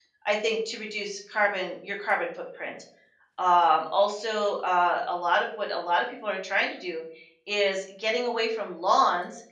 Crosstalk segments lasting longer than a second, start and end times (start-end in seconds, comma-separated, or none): none